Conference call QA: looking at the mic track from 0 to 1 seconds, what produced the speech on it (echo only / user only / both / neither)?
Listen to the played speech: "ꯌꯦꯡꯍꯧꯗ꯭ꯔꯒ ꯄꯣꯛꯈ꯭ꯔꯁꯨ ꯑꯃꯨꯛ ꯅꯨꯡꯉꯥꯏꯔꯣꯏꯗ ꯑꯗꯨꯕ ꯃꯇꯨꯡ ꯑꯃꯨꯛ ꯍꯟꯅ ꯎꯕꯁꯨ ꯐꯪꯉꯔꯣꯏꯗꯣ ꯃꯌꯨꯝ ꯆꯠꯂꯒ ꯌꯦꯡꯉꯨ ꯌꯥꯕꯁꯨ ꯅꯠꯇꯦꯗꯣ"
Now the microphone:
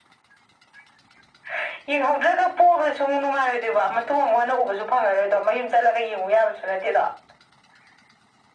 neither